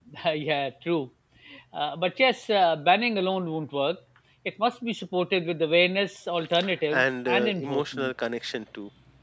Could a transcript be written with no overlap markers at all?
No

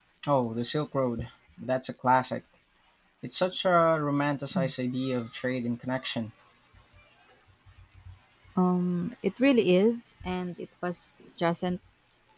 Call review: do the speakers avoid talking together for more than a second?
Yes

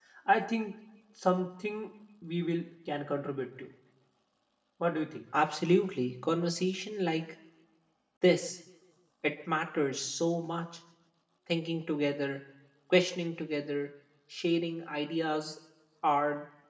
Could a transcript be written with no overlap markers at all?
Yes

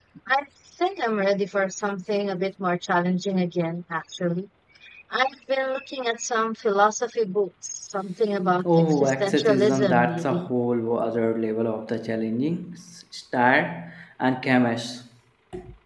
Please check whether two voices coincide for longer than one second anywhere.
Yes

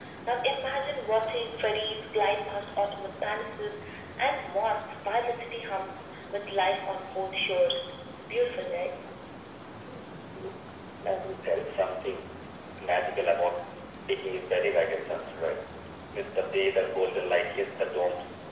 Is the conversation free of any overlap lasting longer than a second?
Yes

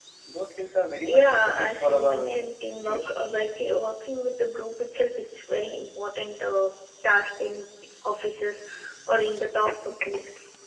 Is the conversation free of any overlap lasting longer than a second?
No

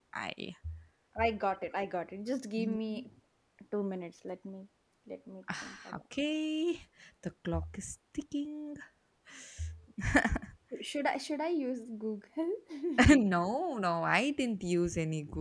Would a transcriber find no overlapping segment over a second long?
Yes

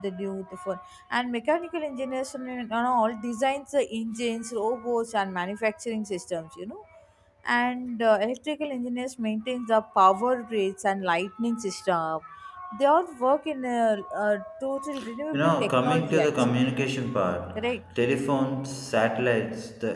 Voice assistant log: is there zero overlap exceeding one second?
No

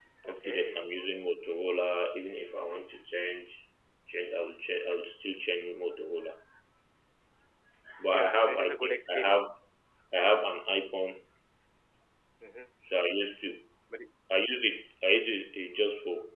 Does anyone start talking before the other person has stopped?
Yes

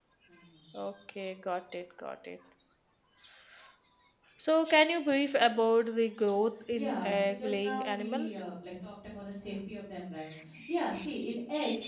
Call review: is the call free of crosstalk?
No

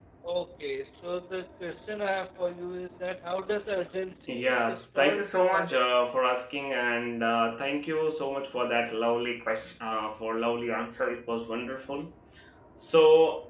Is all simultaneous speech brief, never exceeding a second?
No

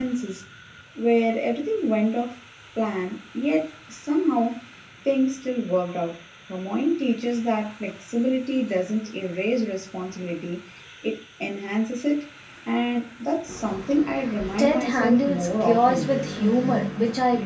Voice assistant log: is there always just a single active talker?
No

